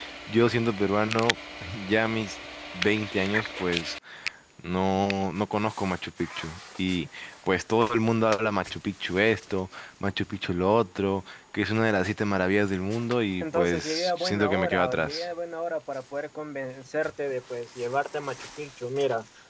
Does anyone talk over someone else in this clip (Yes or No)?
Yes